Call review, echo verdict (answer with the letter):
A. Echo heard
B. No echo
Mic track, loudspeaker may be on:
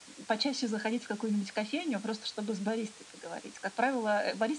A